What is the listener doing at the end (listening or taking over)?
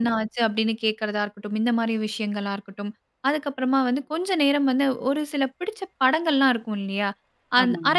listening